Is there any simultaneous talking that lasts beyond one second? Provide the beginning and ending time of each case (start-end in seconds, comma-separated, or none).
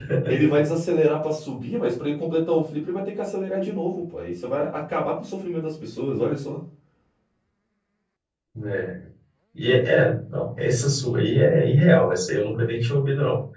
none